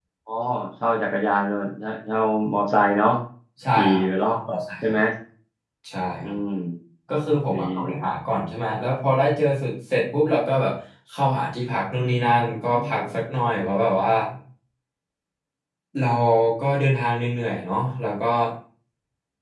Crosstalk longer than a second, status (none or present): present